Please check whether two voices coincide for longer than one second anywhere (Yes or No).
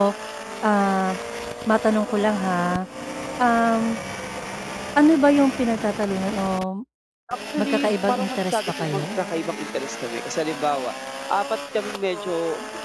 Yes